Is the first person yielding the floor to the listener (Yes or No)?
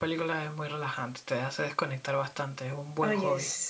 Yes